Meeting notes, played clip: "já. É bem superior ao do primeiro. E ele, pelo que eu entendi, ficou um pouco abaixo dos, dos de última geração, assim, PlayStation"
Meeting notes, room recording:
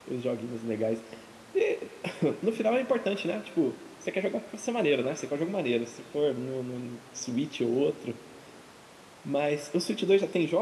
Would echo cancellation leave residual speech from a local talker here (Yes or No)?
Yes